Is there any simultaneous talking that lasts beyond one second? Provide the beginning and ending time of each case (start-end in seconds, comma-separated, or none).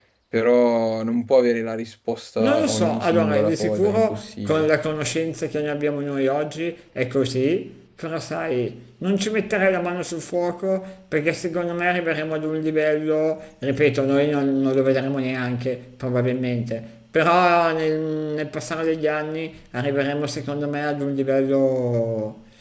2.4-4.7